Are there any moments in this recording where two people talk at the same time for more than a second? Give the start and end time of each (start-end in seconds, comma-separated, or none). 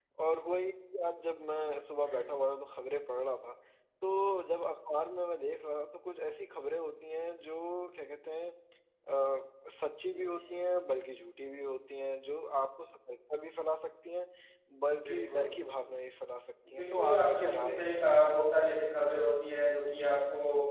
16.7-18.0